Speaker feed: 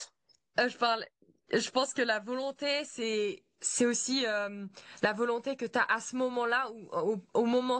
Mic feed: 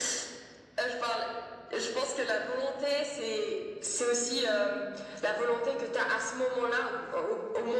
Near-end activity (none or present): none